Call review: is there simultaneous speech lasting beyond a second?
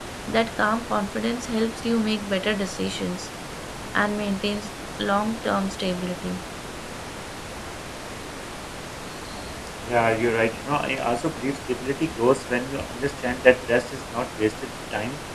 No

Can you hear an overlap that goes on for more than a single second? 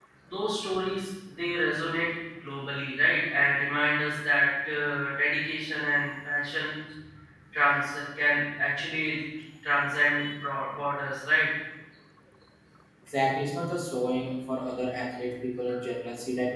No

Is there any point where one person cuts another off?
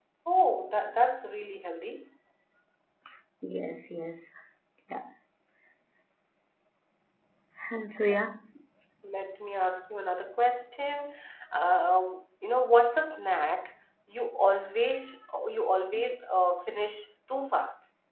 No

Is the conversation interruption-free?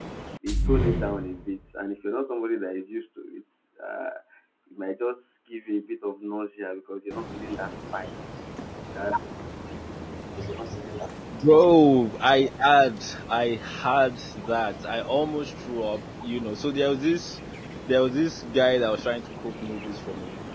Yes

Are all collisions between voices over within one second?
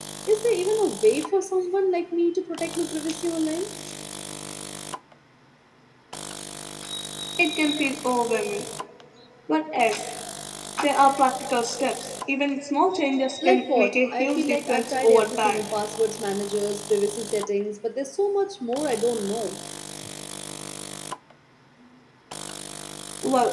No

